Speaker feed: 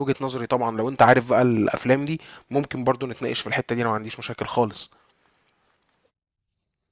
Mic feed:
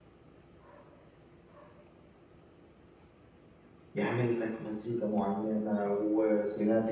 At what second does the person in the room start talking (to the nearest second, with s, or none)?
4 s